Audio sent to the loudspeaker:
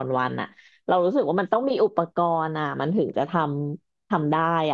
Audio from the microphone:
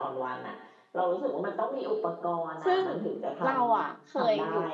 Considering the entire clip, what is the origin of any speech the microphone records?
both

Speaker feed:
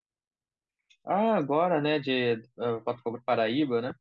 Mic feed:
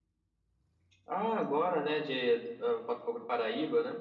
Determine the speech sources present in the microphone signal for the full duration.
echo only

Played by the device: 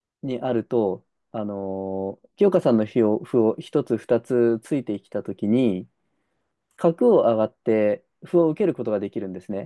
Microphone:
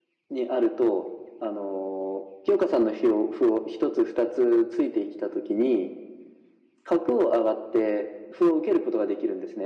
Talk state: echo only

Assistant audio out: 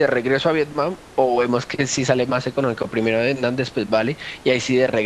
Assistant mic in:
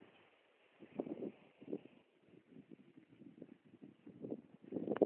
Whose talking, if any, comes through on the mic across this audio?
neither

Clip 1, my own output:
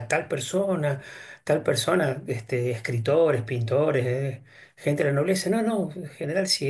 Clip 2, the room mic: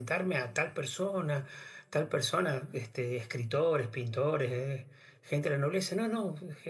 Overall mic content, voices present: echo only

